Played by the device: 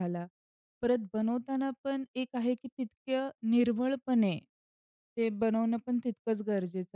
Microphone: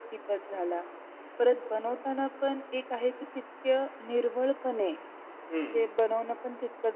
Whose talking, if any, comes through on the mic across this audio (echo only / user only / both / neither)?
both